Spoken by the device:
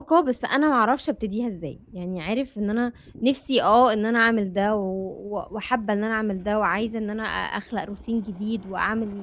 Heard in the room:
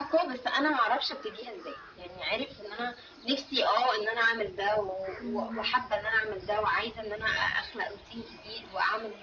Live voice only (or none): اهم،